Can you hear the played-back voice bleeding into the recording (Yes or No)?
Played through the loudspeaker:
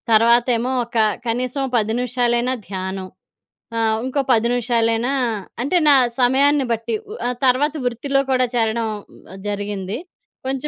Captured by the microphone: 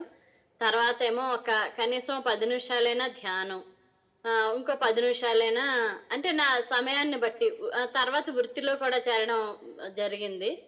Yes